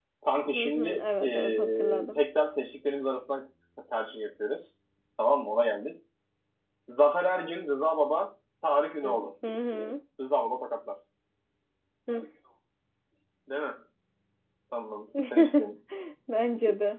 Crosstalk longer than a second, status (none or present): present